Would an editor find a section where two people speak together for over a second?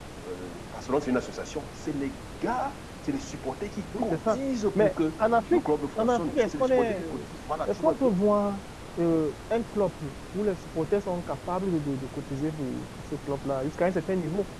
Yes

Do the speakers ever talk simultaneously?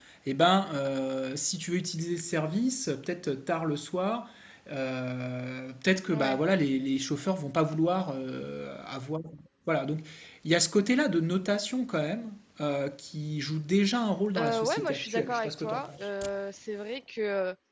Yes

